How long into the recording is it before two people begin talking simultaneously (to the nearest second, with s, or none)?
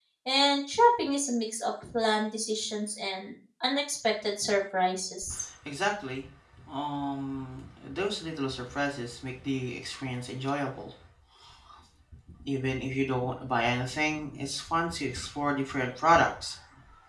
none